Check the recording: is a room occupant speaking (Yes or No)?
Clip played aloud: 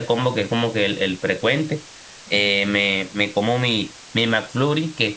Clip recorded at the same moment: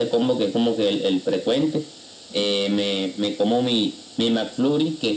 No